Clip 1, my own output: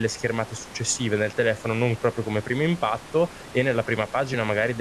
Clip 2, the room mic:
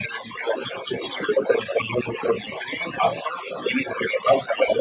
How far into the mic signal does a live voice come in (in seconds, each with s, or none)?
none